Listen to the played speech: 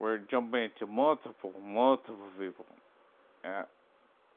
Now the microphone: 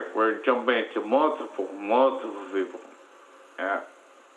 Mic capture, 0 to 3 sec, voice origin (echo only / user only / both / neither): echo only